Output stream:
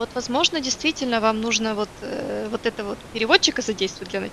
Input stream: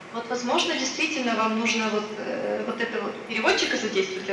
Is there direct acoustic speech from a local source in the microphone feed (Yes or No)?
No